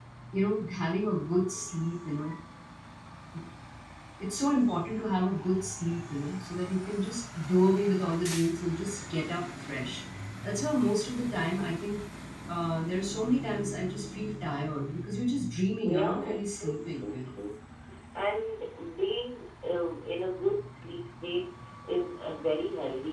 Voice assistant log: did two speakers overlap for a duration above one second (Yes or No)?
Yes